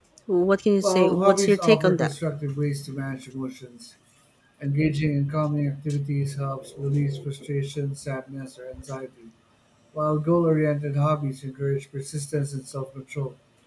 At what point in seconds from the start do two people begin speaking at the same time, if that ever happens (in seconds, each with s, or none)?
0.8 s